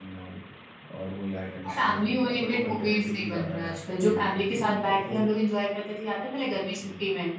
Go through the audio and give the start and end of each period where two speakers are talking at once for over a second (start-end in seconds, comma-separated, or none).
1.7-5.2